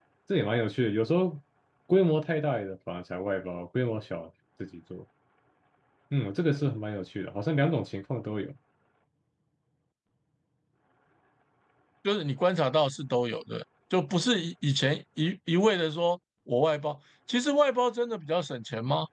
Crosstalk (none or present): none